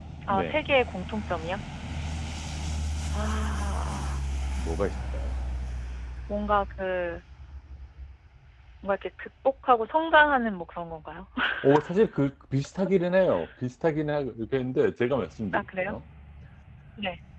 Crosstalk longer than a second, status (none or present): none